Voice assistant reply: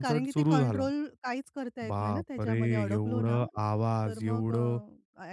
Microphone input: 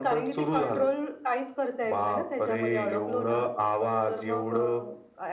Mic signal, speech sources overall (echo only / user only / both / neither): echo only